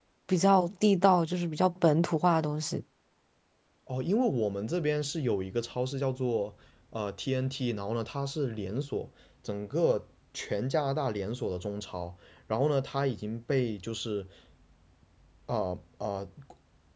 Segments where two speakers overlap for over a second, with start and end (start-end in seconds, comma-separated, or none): none